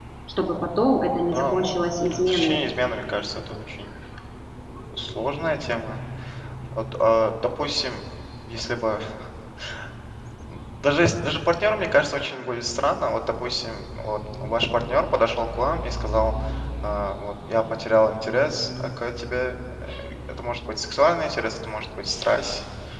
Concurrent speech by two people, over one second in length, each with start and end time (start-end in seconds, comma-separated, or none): 1.2-2.6